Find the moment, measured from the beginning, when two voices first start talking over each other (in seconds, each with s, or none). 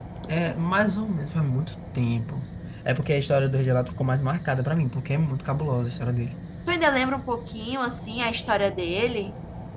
none